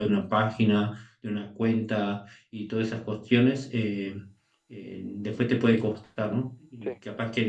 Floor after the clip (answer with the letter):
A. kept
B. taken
A